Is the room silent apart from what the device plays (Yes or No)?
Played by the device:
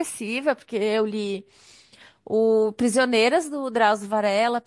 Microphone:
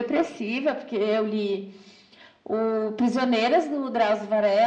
Yes